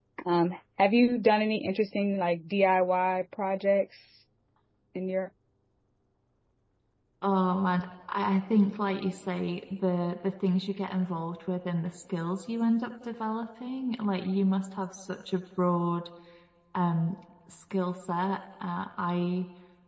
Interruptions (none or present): none